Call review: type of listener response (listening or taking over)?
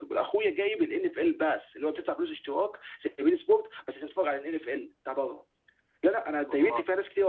listening